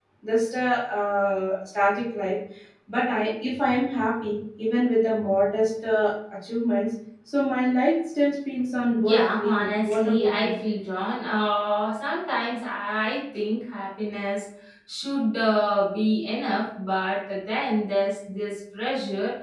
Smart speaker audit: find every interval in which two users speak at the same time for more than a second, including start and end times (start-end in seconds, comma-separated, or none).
8.9-10.6